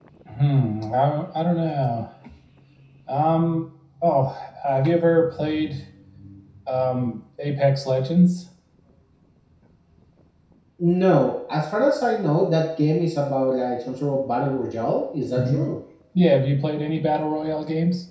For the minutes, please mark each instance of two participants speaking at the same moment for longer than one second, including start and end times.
none

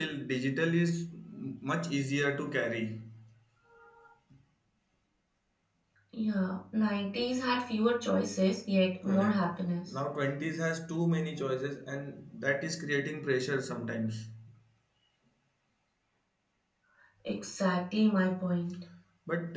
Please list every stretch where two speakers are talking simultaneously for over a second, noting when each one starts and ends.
none

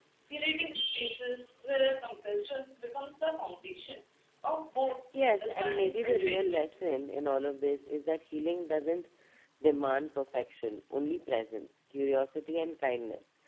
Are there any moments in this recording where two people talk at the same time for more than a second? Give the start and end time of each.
5.3-6.6

